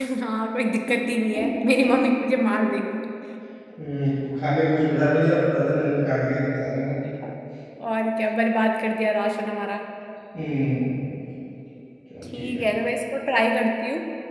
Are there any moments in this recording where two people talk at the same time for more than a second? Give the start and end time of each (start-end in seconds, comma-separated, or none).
none